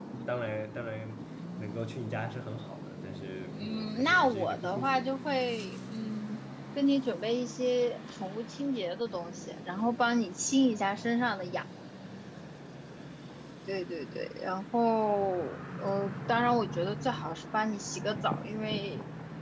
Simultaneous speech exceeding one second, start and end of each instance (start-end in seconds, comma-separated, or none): 3.6-5.0